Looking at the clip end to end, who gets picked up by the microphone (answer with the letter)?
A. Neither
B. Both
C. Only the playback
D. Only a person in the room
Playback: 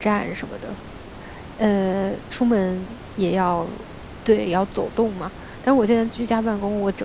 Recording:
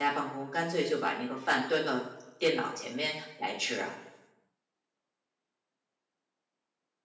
D